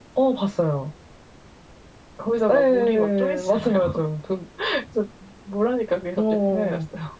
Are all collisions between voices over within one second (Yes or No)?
No